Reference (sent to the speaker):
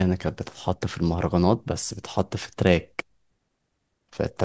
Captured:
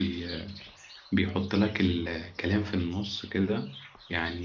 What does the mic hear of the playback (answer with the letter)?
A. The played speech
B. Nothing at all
B